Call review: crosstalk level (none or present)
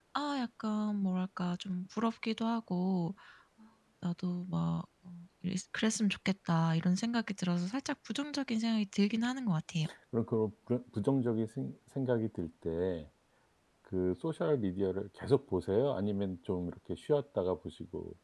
none